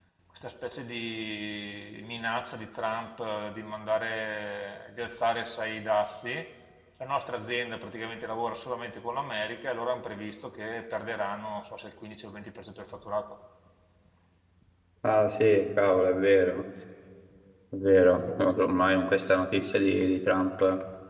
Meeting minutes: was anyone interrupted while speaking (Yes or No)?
No